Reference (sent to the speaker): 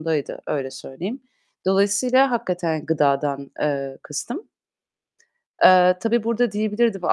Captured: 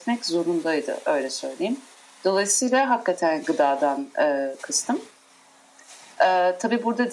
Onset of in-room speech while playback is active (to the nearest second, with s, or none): none